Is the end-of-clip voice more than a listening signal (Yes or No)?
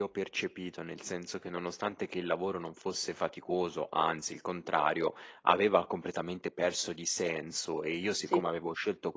No